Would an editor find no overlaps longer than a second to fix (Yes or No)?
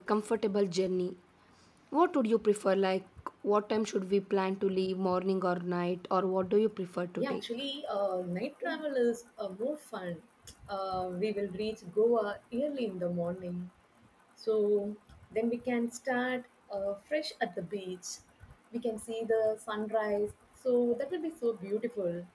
Yes